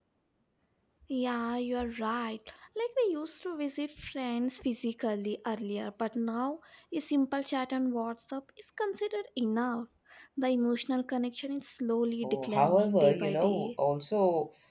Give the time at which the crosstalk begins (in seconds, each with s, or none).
12.2 s